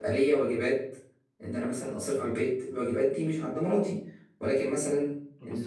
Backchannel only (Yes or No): No